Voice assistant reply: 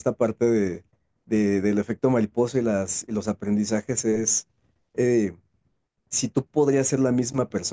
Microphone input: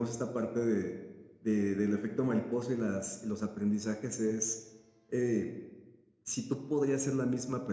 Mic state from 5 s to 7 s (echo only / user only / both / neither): echo only